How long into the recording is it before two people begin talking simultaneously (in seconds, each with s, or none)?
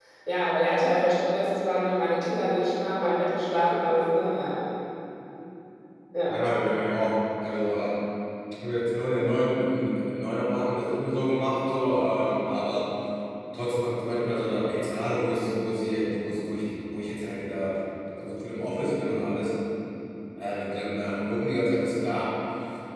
none